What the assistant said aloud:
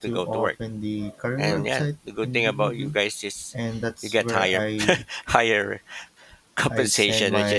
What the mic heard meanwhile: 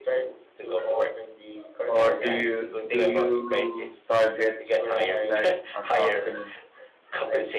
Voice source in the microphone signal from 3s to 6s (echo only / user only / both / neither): both